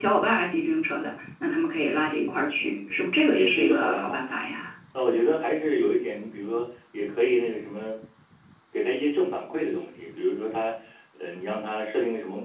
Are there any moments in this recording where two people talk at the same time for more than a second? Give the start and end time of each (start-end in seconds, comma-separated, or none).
2.6-4.3